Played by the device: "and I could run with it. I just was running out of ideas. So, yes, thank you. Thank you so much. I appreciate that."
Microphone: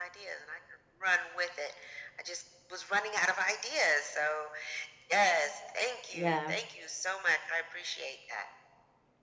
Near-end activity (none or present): present